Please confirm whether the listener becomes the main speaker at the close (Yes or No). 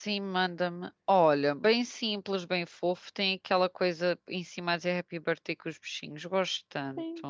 Yes